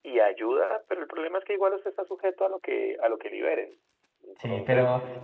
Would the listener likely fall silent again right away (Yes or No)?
No